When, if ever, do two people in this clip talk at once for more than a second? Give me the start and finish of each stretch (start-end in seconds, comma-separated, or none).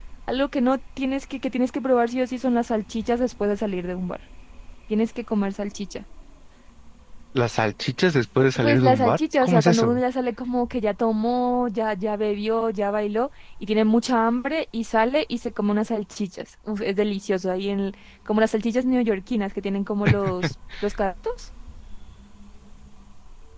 8.6-10.0